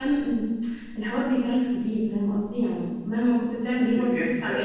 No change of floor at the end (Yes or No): No